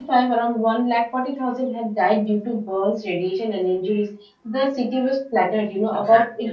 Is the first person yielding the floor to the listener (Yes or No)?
No